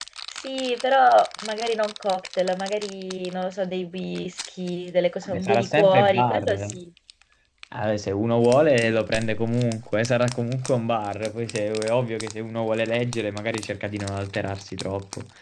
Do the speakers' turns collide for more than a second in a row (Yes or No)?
Yes